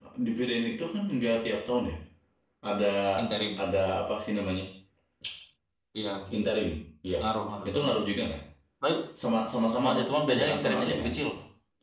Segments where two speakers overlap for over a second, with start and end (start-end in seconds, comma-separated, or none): 9.7-11.1